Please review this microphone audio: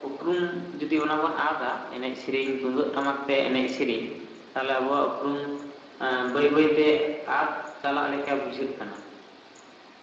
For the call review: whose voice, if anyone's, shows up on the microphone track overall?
echo only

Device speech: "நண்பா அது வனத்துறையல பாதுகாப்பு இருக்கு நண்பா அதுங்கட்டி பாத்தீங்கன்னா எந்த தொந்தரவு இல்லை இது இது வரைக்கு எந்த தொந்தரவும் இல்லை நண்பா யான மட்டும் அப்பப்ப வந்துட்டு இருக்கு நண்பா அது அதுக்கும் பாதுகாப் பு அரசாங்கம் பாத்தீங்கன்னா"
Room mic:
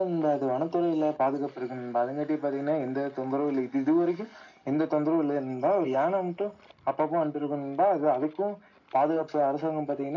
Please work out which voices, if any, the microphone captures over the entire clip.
echo only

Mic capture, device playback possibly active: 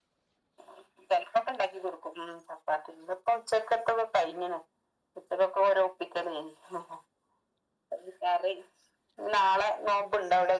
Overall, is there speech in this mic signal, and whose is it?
echo only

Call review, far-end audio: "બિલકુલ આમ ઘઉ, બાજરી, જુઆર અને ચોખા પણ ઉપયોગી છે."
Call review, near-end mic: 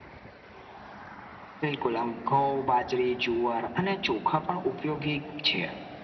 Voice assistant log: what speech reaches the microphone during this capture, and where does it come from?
echo only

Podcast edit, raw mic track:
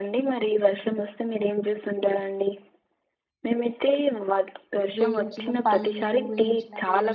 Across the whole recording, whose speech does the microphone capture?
both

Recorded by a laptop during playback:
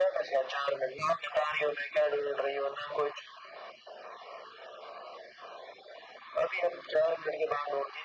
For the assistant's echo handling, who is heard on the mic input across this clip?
echo only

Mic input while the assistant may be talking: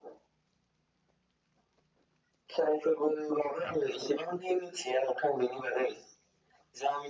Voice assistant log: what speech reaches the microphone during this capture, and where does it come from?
echo only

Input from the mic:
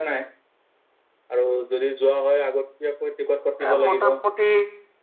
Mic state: both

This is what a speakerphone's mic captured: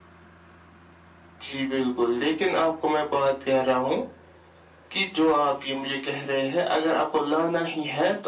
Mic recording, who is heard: echo only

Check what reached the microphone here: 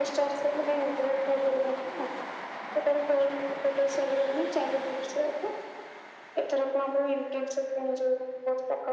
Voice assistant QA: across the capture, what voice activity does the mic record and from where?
echo only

